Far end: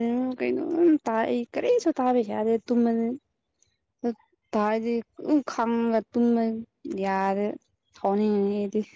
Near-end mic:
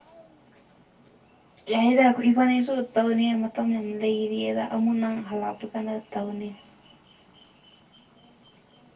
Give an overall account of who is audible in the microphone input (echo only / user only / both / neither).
user only